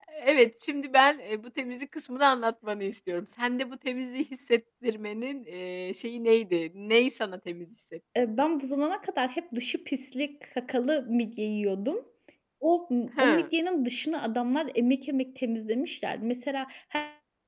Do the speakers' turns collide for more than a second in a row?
No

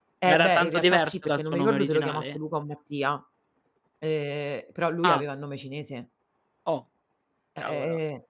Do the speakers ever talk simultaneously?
Yes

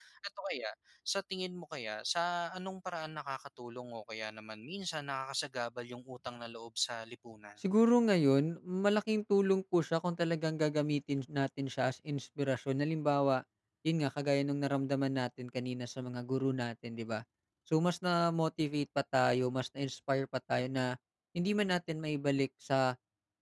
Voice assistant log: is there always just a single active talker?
Yes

